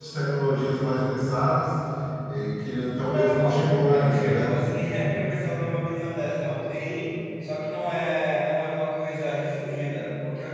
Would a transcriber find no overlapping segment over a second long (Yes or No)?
No